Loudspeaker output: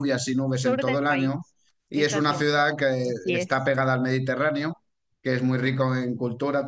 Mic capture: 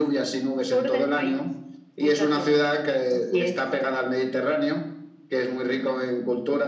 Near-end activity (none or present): none